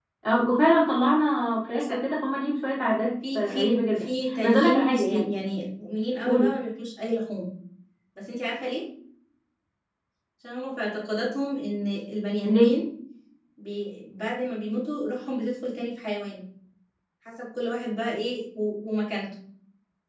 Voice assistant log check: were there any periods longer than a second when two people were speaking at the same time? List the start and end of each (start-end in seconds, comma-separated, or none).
3.3-5.4